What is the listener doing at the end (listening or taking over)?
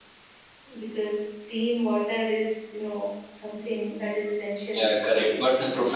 taking over